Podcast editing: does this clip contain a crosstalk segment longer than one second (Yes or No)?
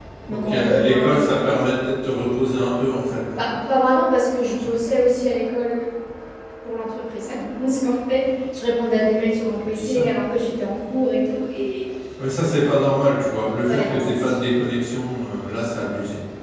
Yes